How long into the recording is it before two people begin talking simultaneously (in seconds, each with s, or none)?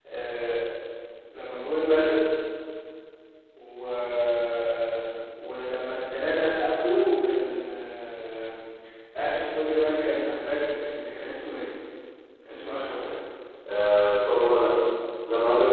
none